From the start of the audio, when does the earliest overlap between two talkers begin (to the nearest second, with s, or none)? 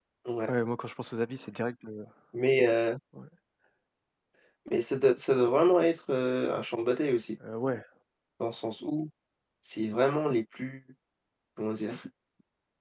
none